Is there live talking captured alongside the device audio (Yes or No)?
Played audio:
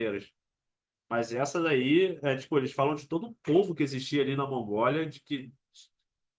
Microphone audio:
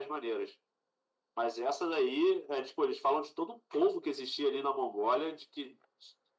No